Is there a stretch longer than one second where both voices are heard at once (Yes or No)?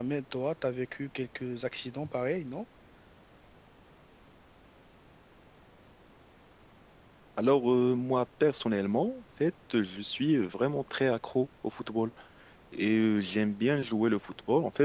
No